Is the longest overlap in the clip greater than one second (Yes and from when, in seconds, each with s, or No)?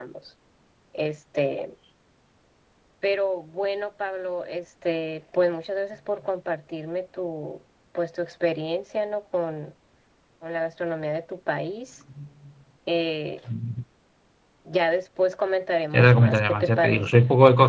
Yes, from 15.9 s